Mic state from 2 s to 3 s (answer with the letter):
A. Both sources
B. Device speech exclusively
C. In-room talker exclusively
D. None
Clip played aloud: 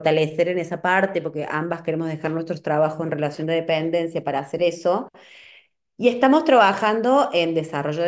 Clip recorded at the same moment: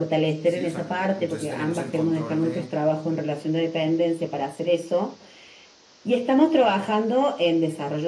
A